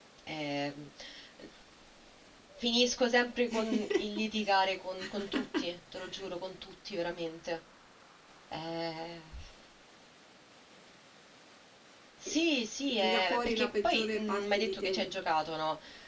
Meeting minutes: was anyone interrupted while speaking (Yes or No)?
Yes